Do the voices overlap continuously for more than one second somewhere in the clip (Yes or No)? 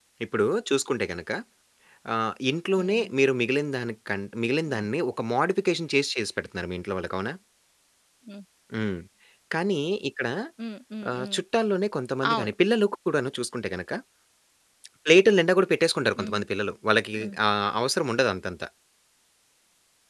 No